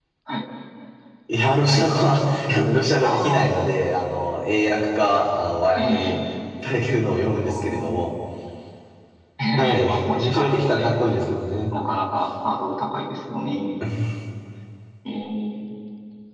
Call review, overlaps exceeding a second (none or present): present